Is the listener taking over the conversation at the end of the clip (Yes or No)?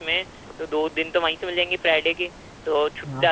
No